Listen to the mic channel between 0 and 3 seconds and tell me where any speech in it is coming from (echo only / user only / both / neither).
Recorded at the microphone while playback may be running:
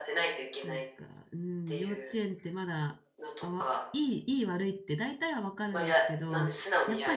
both